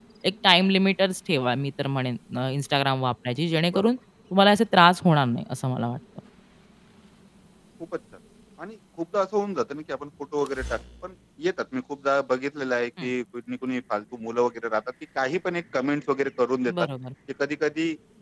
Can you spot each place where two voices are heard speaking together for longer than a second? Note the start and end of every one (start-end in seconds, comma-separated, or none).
none